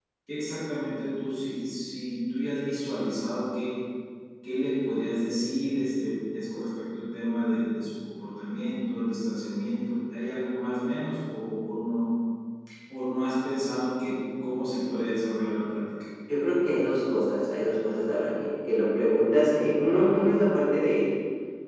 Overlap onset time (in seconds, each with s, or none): none